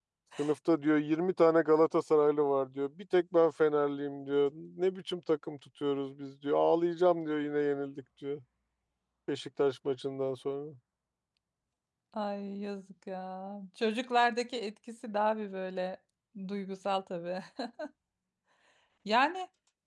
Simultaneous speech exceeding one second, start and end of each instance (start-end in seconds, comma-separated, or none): none